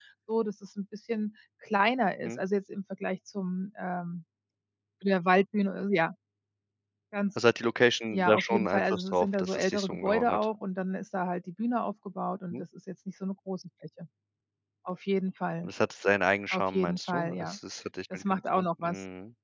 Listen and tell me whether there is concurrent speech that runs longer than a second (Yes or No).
Yes